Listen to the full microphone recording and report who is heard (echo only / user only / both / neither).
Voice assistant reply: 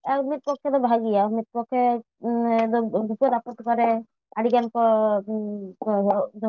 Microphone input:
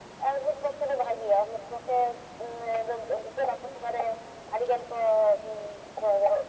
echo only